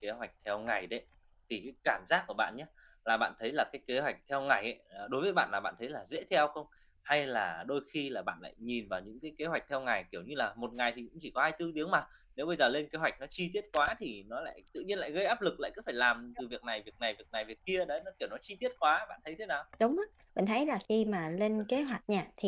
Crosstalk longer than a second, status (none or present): none